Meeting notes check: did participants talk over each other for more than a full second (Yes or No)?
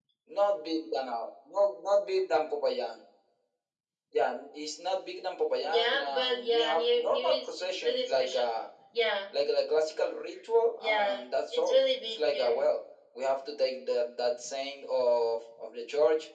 Yes